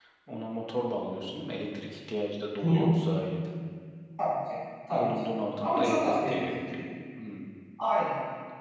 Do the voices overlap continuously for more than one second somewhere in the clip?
Yes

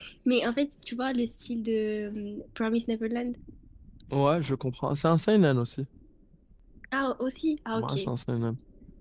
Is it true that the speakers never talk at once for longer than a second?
Yes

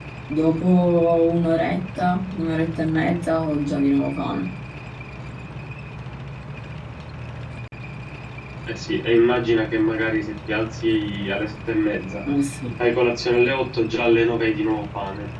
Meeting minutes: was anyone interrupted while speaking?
No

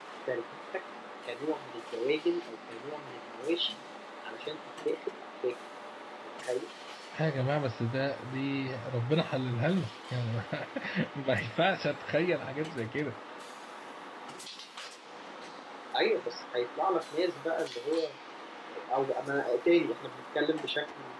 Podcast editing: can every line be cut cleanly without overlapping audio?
Yes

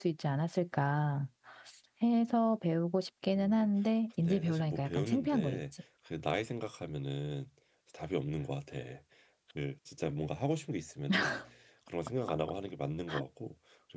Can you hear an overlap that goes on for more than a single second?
Yes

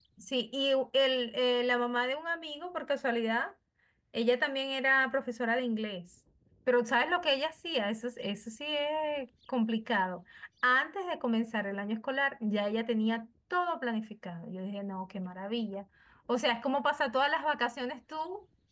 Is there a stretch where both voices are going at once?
No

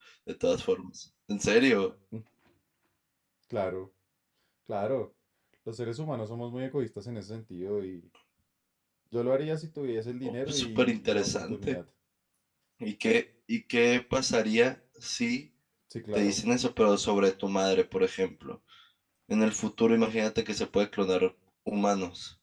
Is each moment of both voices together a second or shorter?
No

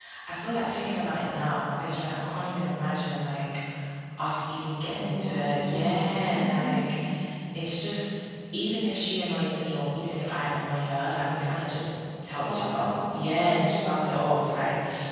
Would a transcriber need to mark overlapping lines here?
Yes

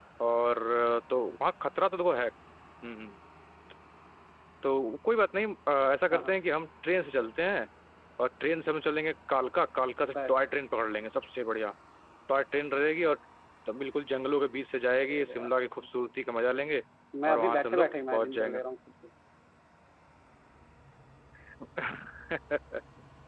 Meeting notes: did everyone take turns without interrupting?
No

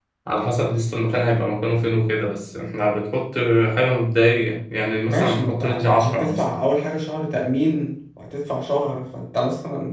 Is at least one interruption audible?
Yes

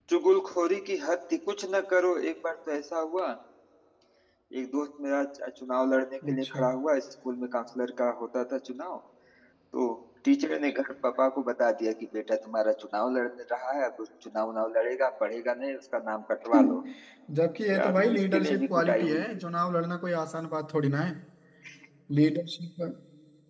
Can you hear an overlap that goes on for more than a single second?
Yes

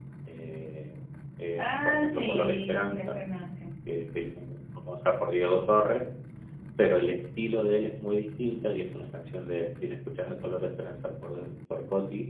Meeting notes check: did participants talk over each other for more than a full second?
Yes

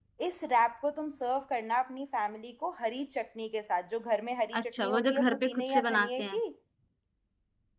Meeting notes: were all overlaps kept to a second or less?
No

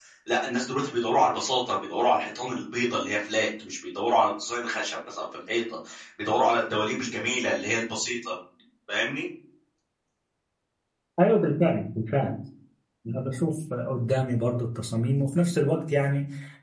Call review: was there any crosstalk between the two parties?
No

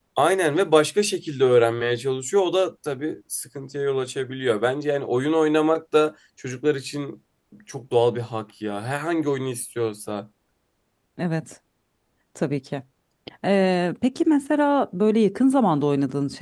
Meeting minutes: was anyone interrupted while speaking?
No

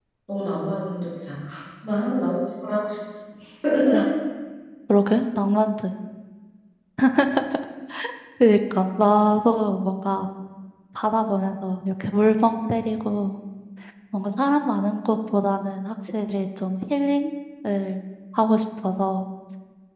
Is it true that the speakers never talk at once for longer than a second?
Yes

